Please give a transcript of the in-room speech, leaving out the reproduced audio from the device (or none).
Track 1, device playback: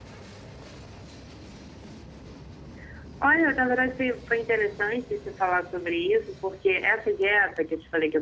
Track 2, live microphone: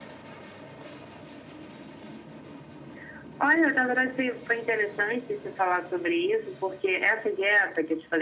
none